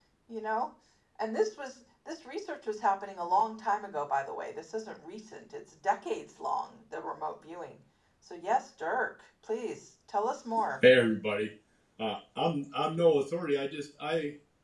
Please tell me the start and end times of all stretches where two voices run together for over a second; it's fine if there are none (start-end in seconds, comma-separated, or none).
none